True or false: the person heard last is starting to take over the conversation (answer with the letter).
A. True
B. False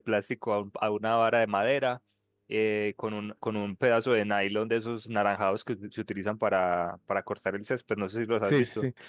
A